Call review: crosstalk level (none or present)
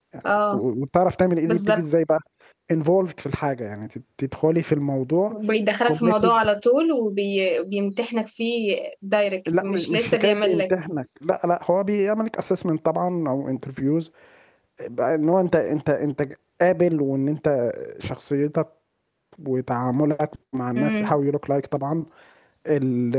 present